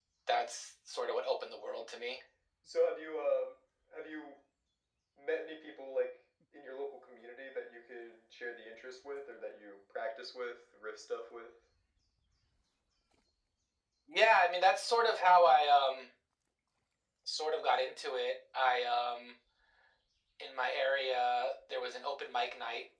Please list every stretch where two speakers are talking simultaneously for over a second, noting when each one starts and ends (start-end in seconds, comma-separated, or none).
none